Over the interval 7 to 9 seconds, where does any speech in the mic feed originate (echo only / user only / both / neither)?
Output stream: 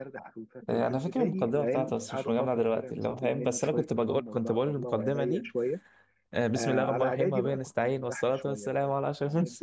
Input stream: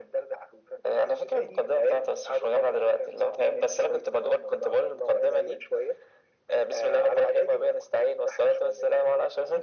echo only